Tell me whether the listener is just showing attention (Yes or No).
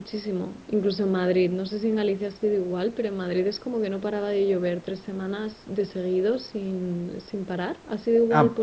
No